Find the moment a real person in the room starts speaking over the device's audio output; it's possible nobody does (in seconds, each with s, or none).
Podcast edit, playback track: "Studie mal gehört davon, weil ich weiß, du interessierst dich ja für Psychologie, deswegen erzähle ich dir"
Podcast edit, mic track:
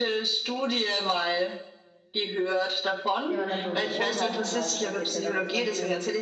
3.2 s